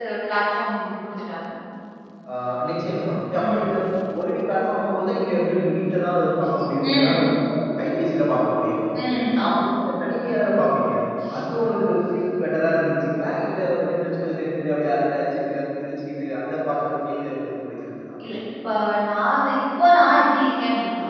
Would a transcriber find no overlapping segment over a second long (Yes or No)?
Yes